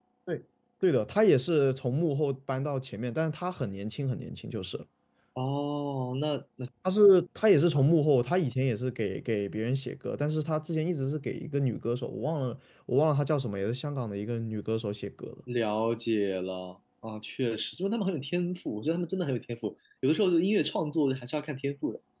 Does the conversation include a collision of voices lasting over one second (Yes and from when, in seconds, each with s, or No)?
No